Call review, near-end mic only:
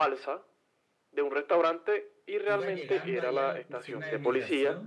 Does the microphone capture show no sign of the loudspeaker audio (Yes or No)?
No